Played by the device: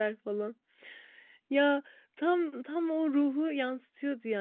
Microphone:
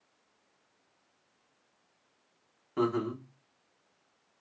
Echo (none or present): none